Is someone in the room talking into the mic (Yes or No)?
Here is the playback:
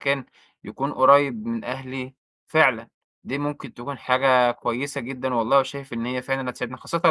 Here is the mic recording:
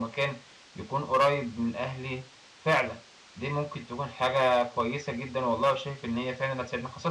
No